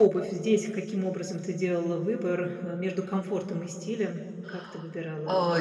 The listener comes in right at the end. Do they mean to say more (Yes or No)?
Yes